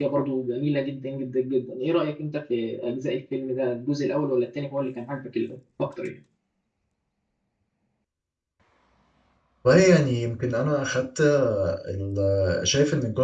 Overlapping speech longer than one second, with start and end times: none

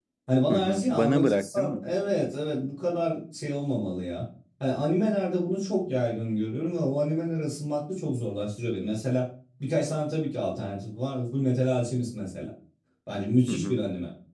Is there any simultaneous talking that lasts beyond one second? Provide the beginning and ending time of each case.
0.5-1.9

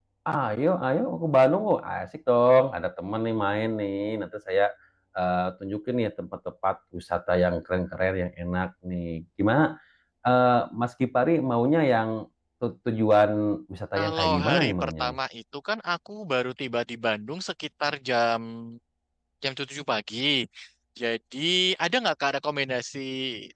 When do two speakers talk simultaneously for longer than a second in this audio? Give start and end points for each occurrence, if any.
14.0-15.2

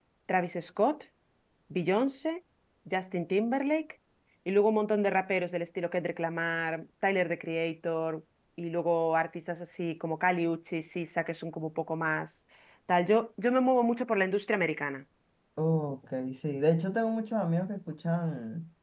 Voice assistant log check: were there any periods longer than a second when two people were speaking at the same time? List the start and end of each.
none

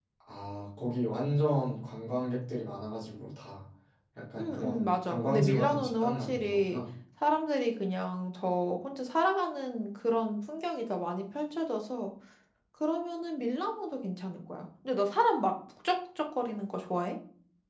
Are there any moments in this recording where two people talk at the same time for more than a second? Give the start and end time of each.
4.4-6.8

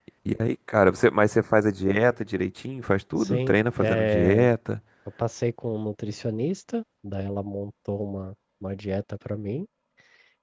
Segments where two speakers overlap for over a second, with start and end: 3.2-4.4

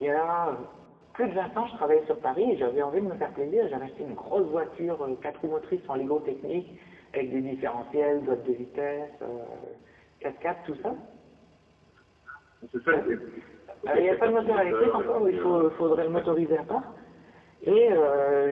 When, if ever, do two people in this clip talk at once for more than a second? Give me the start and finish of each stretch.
13.9-16.4

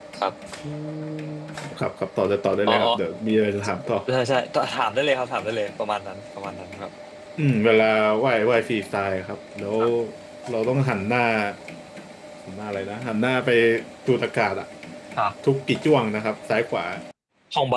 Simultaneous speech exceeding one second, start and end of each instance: none

